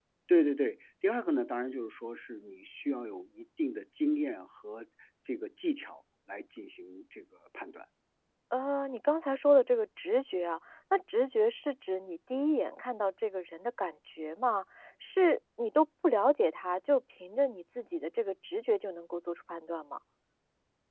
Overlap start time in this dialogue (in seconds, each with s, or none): none